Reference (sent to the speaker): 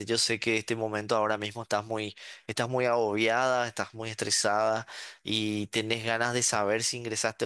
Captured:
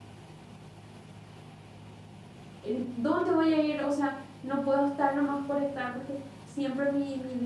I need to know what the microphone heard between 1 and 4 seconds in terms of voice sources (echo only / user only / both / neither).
user only